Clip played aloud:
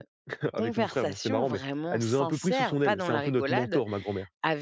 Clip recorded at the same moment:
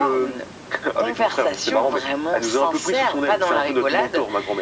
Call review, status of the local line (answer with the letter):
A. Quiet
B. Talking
A